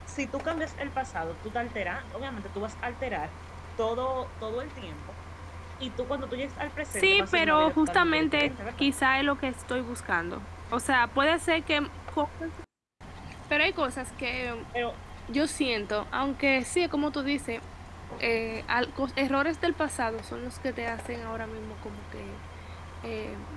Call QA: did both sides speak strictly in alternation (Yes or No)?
No